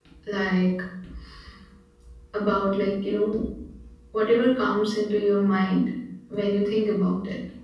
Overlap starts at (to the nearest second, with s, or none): none